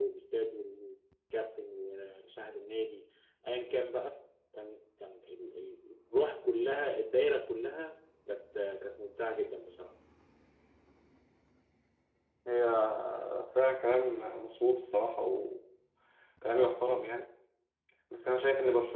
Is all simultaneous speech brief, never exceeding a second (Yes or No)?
Yes